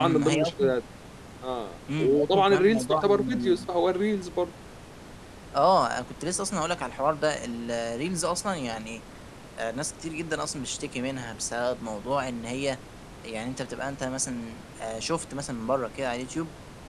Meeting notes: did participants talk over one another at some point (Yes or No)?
Yes